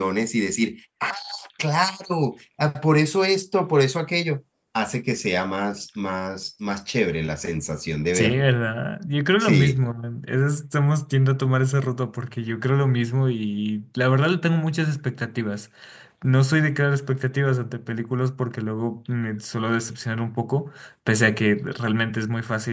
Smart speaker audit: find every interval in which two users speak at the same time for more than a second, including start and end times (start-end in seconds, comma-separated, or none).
none